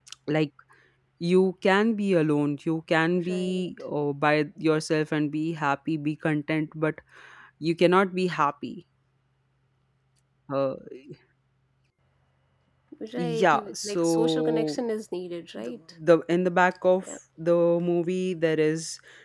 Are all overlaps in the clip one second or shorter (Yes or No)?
No